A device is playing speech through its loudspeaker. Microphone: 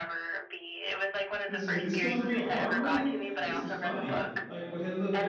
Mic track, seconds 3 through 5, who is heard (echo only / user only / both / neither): both